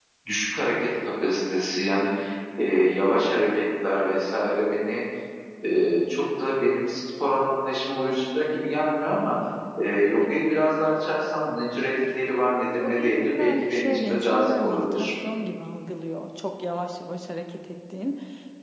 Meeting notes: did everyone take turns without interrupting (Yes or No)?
No